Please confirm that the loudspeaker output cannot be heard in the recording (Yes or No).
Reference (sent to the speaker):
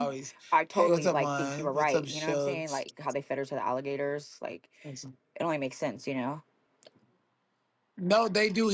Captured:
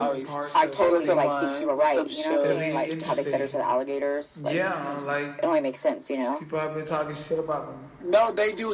No